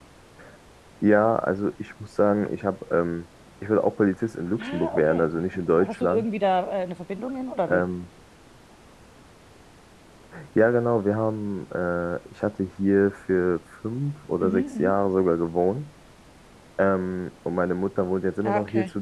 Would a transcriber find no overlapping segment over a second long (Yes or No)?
No